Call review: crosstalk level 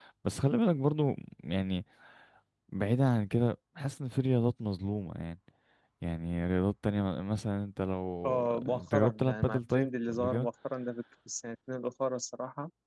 present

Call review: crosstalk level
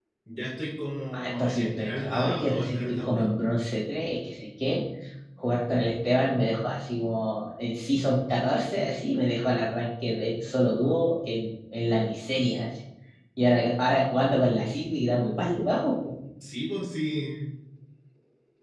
present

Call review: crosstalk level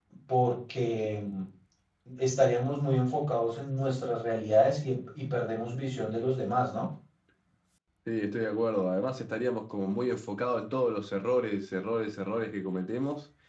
none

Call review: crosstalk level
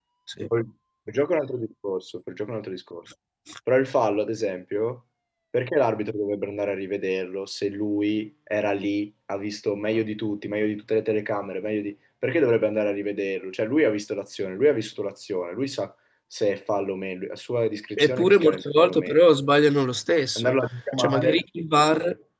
present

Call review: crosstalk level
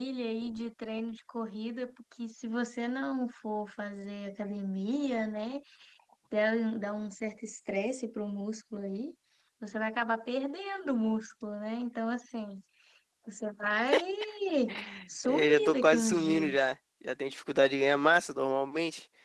present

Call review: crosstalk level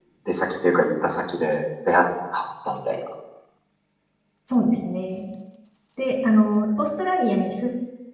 none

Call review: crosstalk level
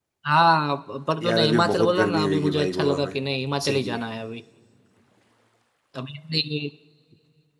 present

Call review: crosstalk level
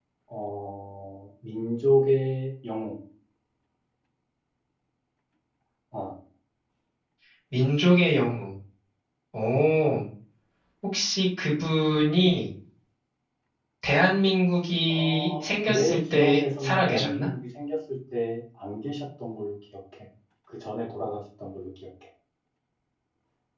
present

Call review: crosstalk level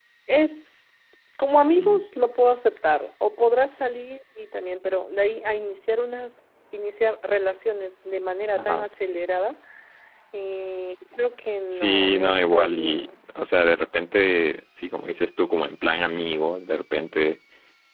present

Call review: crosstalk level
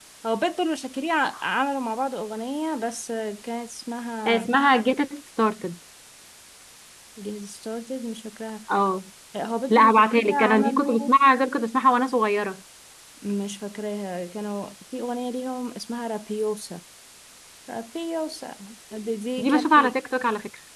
present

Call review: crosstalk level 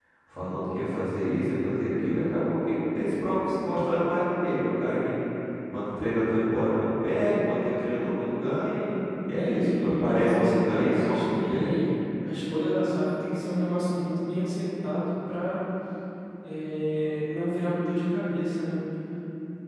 present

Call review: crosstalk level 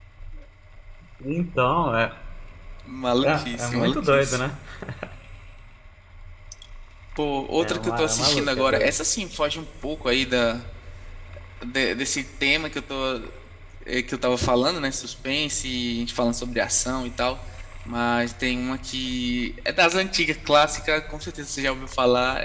present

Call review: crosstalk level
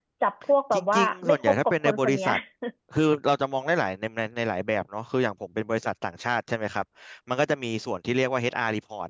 present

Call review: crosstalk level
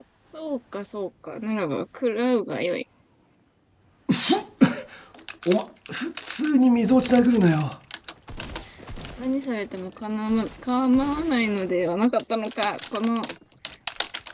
none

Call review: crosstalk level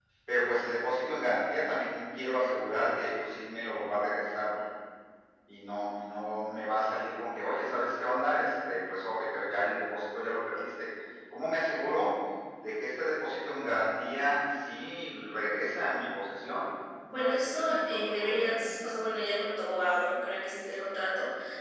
present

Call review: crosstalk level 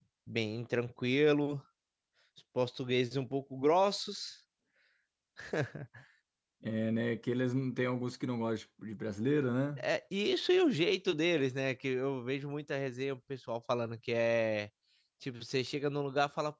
none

